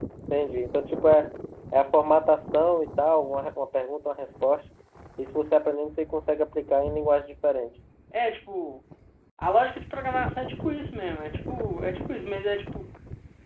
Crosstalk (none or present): none